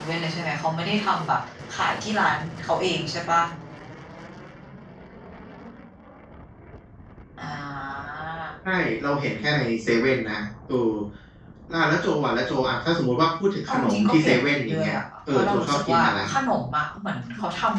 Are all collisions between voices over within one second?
No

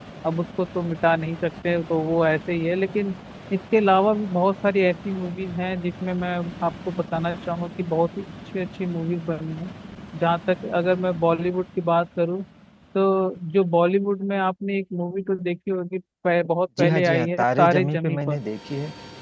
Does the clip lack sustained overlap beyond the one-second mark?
No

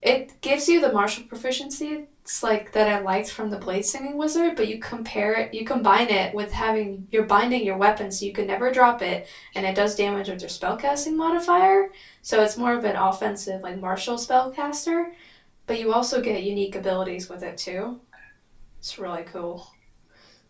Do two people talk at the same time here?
No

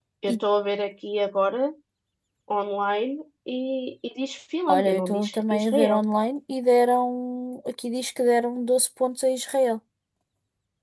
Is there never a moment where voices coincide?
No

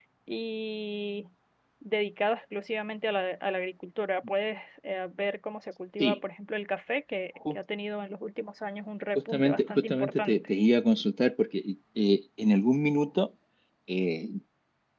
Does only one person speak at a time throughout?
No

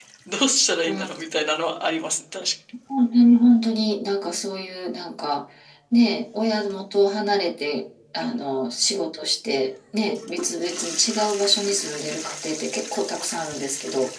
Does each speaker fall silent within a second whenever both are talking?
Yes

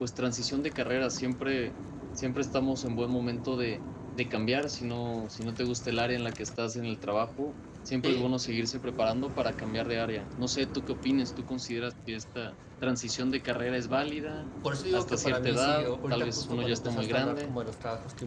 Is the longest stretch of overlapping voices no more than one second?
No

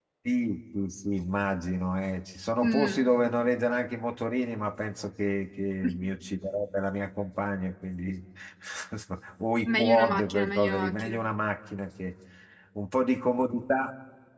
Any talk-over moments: Yes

